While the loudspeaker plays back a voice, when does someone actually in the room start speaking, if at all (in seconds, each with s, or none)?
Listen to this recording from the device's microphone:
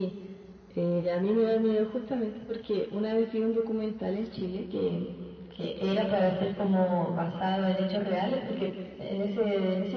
none